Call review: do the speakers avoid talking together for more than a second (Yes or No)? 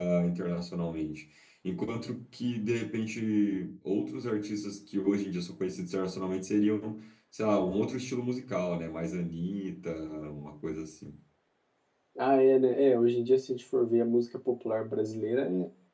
Yes